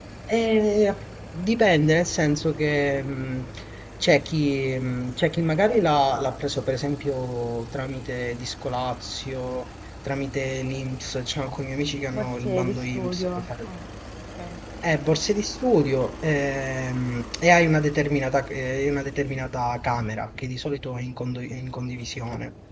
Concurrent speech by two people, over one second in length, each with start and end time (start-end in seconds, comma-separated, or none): 12.1-13.7